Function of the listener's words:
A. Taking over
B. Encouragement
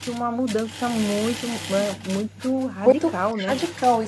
A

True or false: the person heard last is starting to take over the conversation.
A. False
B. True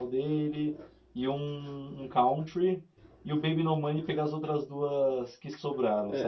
B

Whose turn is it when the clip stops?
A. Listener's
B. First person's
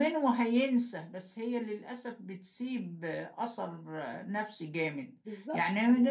B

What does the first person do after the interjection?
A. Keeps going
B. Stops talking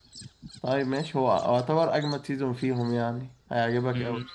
B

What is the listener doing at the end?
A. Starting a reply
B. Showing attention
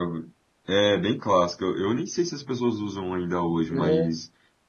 B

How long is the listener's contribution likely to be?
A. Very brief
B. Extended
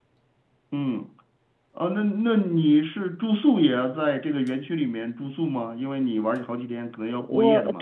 B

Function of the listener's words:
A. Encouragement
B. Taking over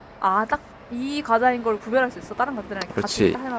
B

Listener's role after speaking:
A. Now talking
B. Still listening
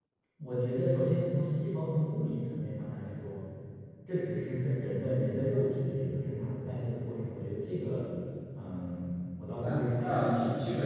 A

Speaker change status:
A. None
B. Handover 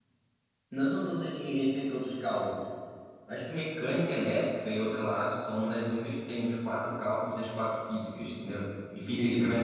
A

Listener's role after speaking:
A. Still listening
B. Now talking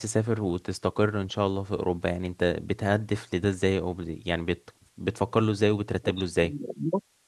B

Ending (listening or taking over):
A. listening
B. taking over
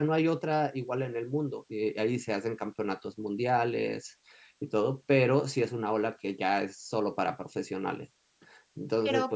A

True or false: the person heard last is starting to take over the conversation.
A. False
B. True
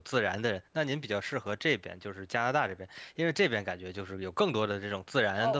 B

